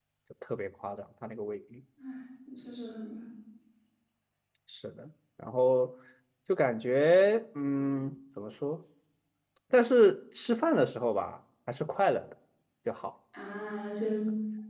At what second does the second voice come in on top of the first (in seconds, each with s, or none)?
none